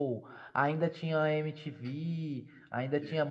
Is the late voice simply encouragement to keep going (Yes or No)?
Yes